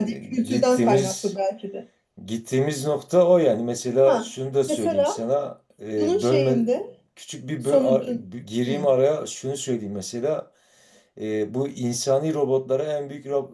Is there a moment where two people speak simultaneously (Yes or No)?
Yes